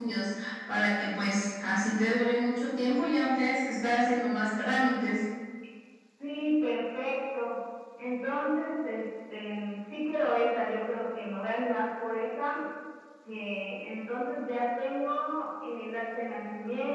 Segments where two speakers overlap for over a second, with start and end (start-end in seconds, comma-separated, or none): none